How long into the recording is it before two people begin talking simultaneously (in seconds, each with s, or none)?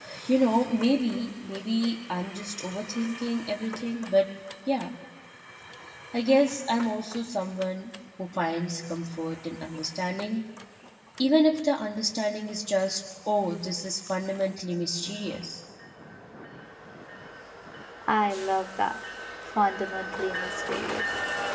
none